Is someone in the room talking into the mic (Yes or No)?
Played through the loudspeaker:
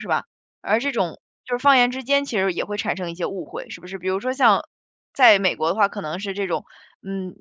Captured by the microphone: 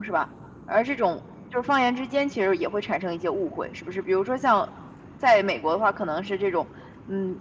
No